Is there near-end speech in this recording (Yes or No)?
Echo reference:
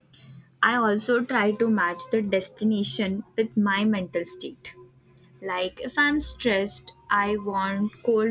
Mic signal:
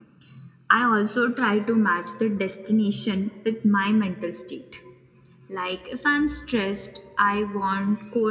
No